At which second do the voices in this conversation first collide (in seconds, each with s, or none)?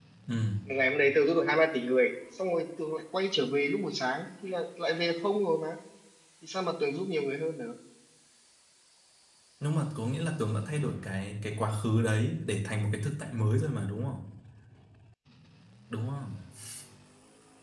none